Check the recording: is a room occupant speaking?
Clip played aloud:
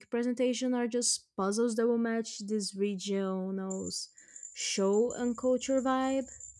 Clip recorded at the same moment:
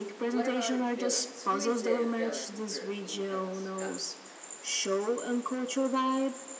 Yes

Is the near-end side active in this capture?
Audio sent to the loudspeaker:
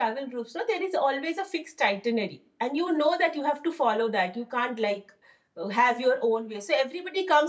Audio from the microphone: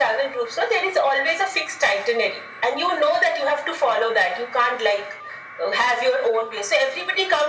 No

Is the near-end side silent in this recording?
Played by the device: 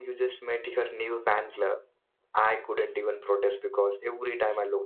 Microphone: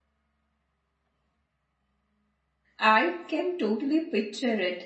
No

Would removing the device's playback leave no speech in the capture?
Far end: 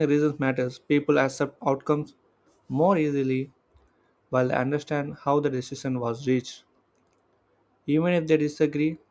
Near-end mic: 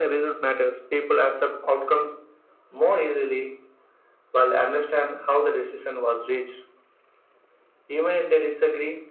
Yes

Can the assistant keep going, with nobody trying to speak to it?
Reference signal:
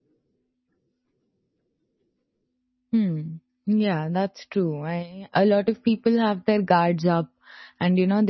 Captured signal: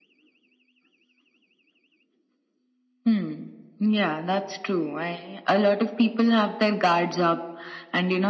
Yes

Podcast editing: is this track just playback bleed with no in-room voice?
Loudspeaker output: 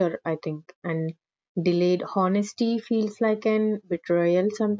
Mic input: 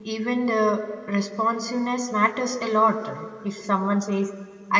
No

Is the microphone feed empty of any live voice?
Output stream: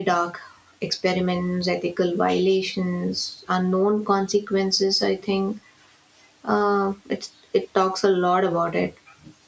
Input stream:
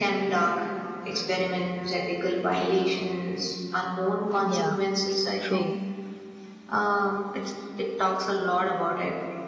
No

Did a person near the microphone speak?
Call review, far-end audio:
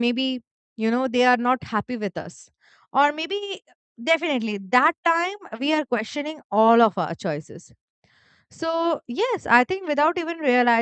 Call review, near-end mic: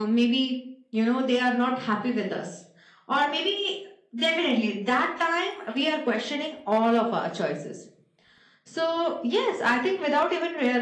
No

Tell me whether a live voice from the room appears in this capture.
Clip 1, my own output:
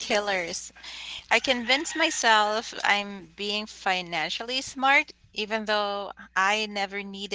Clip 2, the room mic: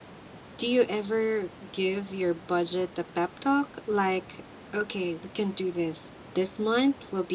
Yes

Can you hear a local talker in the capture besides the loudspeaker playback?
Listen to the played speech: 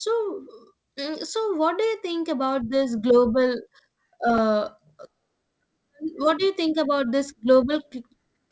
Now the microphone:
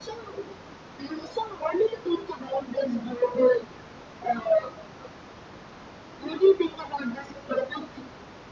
No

